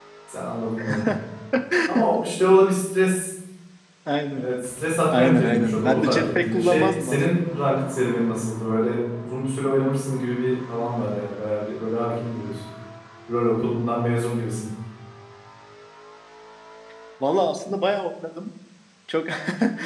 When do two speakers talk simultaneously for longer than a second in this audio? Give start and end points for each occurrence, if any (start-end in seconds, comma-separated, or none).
5.1-7.6